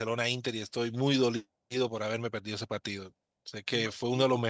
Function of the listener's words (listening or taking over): listening